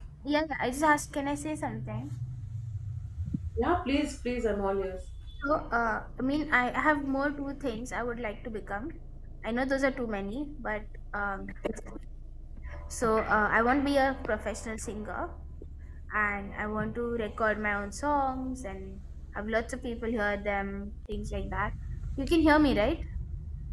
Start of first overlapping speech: none

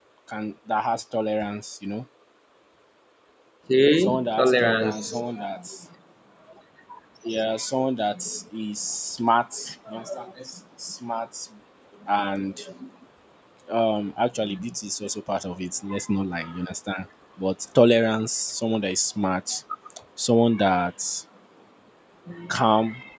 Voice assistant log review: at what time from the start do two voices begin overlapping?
4.0 s

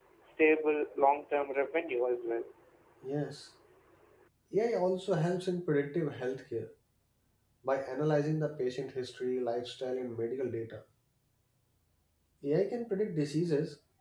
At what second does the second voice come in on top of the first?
none

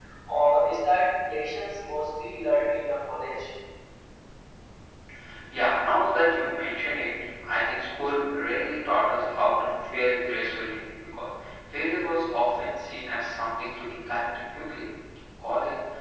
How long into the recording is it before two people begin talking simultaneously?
none

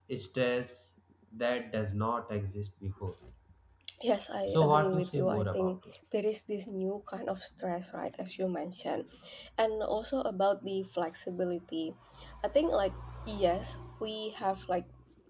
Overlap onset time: 4.5 s

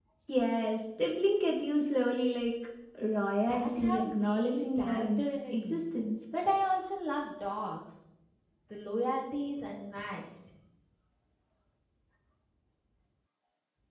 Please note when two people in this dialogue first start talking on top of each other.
3.5 s

